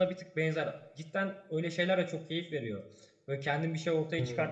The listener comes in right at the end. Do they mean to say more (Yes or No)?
No